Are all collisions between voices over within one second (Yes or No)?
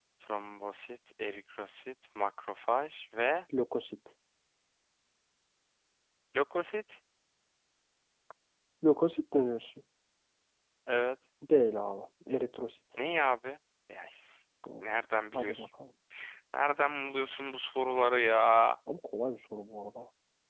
Yes